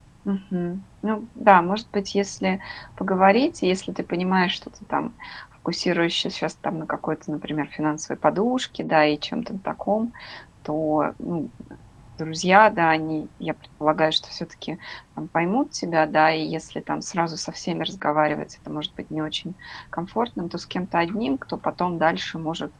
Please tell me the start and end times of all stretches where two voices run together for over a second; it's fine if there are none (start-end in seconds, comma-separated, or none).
none